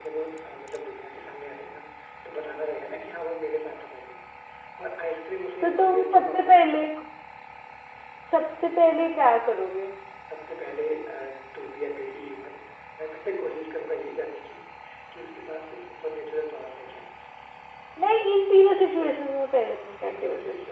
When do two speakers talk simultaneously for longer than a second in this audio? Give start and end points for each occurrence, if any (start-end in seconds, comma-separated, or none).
5.6-6.8